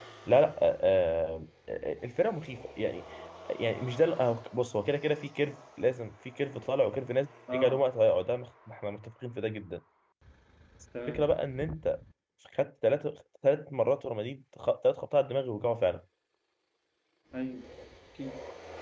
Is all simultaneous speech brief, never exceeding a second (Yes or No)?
Yes